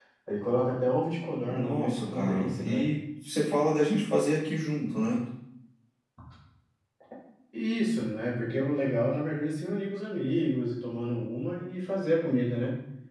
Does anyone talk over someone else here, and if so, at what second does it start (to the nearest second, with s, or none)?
1 s